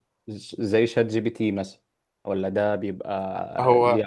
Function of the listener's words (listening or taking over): listening